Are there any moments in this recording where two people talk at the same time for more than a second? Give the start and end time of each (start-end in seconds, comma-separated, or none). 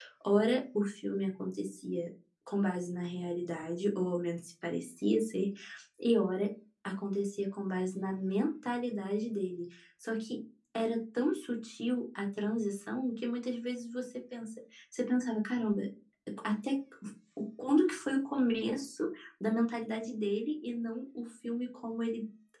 none